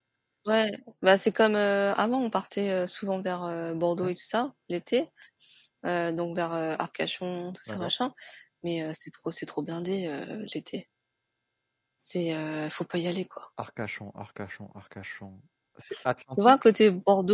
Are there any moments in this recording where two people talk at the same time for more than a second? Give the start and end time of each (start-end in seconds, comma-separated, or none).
none